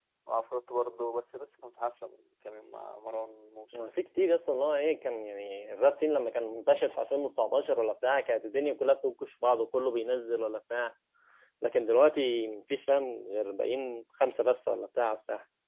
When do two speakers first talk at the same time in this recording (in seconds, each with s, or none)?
none